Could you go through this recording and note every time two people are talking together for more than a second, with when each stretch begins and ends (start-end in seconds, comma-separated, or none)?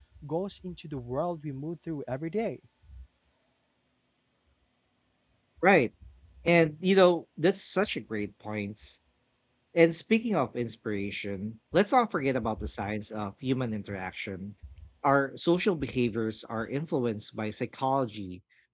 none